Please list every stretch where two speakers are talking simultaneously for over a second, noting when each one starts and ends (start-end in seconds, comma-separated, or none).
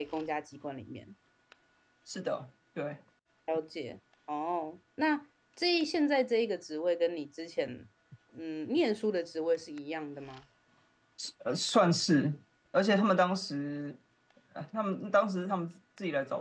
none